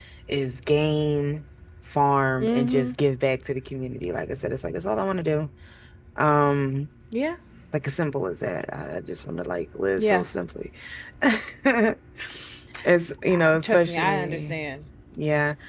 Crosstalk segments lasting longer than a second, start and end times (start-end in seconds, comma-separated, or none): 13.3-14.6